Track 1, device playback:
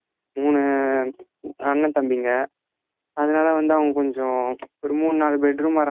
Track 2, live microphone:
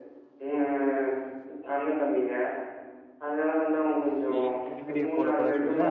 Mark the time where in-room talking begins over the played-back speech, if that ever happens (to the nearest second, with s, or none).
4 s